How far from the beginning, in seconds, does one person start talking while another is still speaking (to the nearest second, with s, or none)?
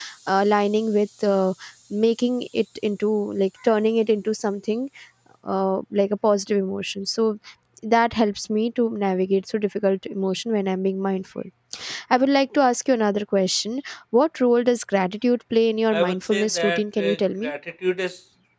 16 s